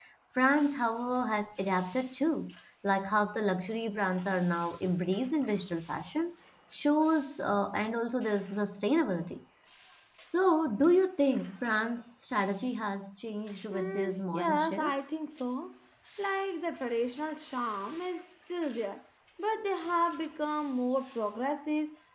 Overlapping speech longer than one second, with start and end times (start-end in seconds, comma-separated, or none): 13.7-15.1